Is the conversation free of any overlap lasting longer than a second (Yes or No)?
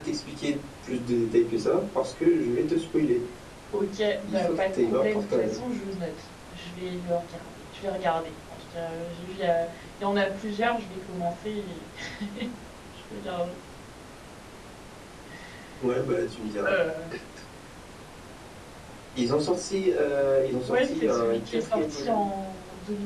No